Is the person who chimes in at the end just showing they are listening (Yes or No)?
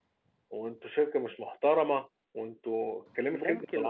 No